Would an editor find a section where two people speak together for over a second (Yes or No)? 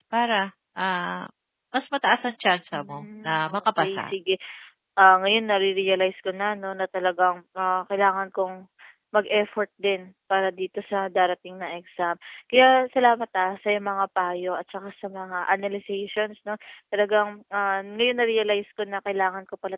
Yes